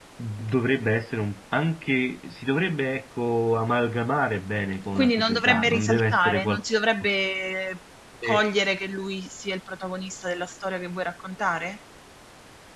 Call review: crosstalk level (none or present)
present